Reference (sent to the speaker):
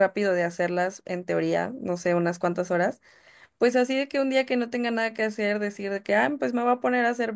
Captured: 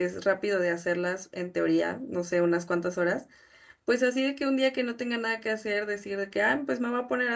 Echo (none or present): present